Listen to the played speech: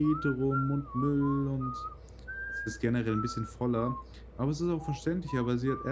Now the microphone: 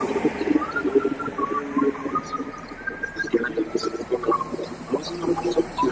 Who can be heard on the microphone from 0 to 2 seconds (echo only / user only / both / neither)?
echo only